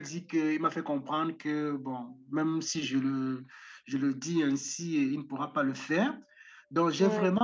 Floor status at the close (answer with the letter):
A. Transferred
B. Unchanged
B